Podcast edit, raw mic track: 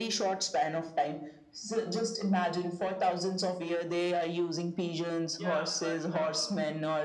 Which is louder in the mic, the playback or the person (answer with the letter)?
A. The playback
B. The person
A